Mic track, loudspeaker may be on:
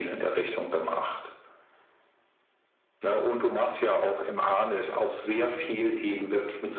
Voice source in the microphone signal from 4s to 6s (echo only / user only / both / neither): echo only